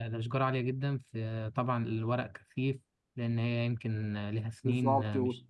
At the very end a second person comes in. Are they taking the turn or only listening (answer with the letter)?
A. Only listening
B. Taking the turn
B